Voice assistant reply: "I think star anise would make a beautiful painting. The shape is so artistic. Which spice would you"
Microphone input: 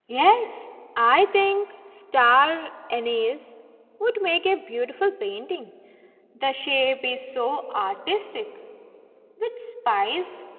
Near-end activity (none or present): none